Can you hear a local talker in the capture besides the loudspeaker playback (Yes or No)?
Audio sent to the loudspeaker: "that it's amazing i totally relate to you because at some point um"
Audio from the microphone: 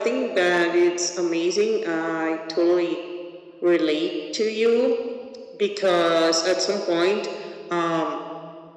No